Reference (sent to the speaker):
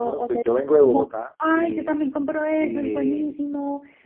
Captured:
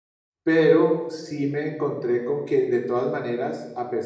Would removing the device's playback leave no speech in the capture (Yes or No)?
No